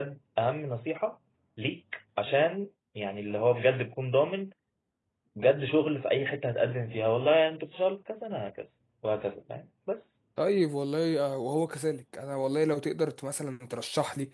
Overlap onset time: none

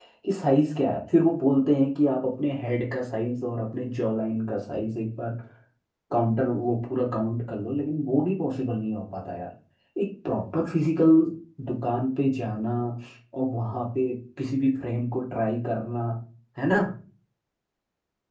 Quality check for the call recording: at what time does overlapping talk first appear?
none

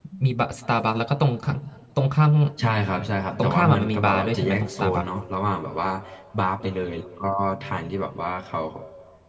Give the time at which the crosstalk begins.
3.4 s

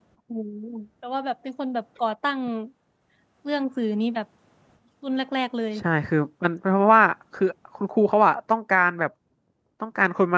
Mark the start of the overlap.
none

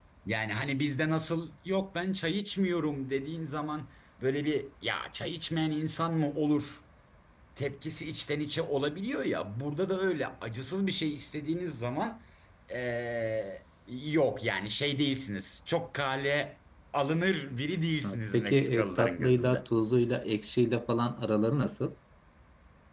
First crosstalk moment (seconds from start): 18.0 s

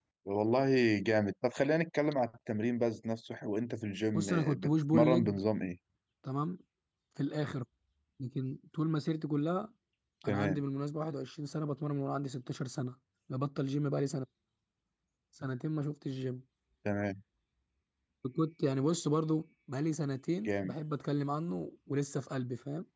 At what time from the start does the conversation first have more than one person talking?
4.2 s

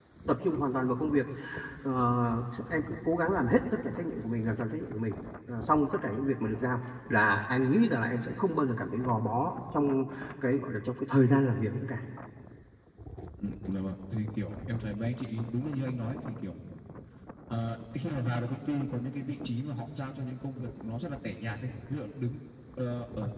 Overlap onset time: none

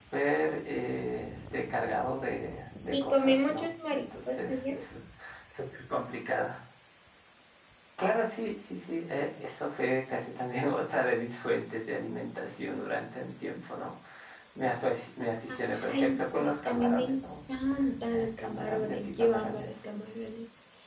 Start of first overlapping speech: 2.9 s

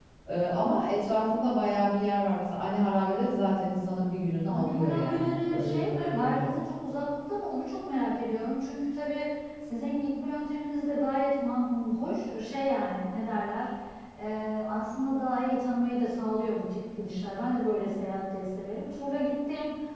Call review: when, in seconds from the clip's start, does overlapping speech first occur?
4.5 s

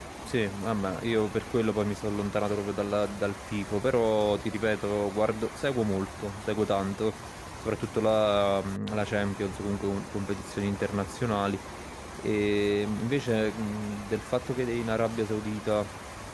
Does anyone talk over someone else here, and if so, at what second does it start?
none

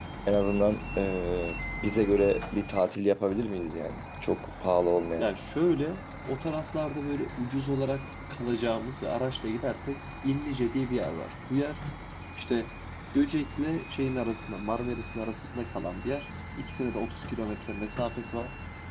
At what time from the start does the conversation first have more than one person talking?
none

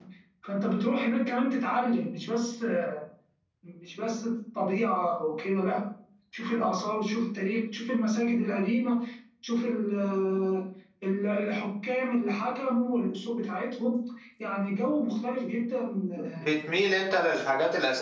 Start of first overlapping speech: none

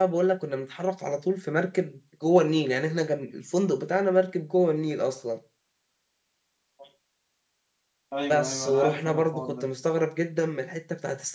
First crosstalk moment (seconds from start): 8.3 s

